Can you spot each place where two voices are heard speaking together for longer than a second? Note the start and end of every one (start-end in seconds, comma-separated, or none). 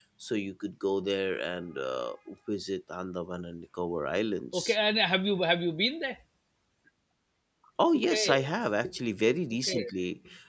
none